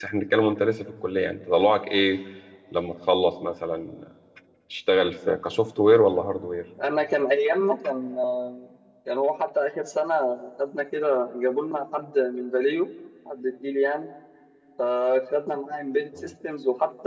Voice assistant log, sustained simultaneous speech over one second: none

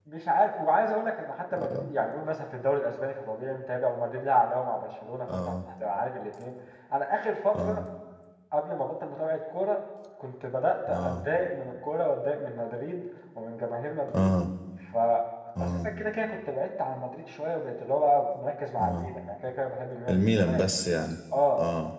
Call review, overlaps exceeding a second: none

